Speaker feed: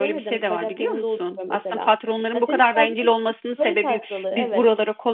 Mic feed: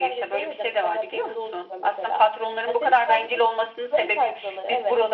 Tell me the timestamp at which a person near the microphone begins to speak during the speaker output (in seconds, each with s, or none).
none